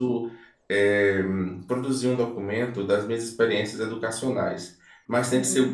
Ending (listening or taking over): listening